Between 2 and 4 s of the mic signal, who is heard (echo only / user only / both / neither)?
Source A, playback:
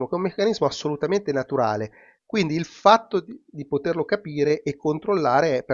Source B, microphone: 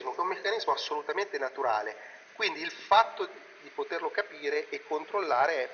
echo only